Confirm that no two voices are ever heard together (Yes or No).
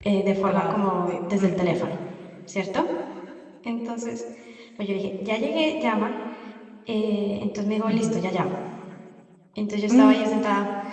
No